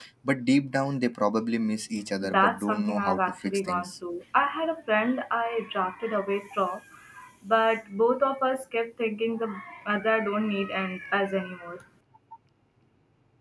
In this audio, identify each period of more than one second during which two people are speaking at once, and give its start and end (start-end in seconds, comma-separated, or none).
2.2-3.9